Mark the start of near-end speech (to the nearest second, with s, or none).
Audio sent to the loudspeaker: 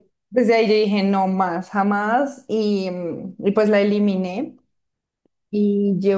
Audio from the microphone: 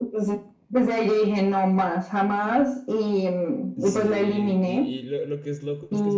4 s